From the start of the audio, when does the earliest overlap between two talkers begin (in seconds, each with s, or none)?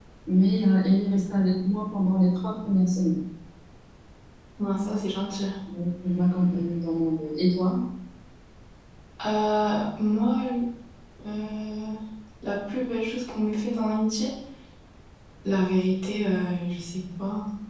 none